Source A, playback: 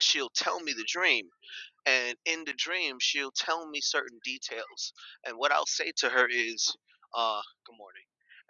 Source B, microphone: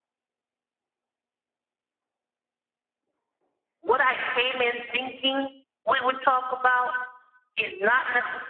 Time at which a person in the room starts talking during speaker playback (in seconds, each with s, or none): 3.8 s